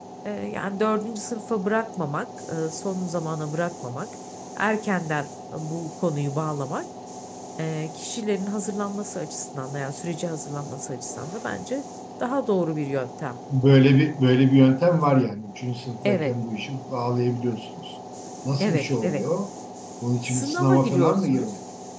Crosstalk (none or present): present